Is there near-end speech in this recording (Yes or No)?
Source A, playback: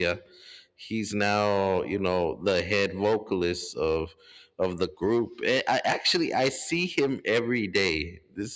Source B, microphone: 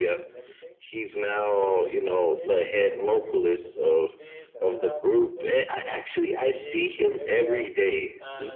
Yes